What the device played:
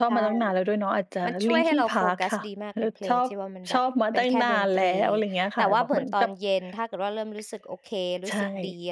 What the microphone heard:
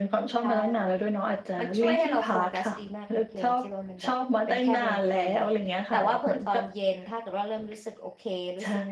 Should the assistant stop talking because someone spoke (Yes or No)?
No